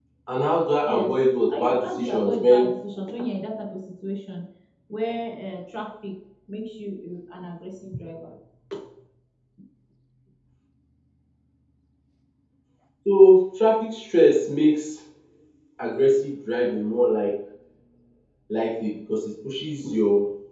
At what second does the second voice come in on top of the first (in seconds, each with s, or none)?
0.8 s